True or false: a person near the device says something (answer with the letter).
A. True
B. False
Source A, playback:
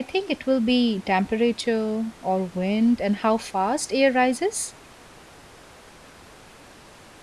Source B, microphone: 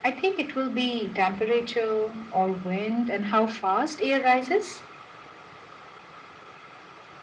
B